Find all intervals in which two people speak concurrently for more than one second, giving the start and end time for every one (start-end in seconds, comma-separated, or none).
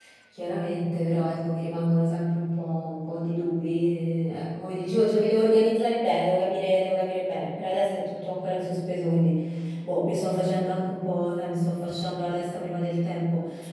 none